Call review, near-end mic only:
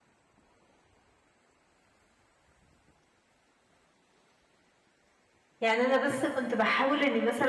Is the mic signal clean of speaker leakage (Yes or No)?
Yes